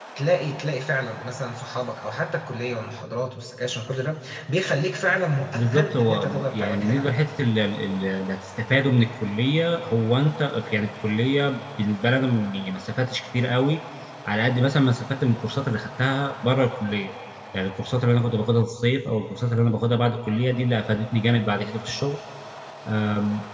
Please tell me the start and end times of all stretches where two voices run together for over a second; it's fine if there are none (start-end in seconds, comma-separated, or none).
5.5-7.1